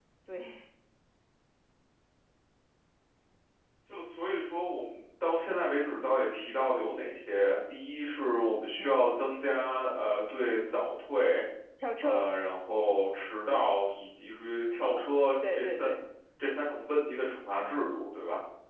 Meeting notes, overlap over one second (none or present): none